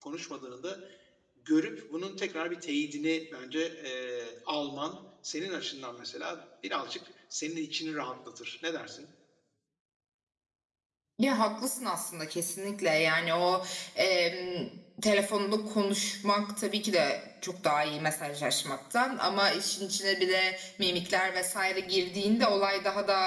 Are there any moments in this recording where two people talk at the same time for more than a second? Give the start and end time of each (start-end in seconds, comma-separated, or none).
none